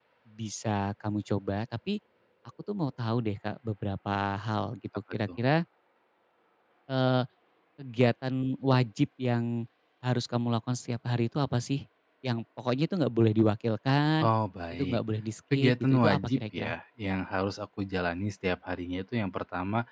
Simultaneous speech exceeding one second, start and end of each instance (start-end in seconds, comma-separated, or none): 15.5-16.7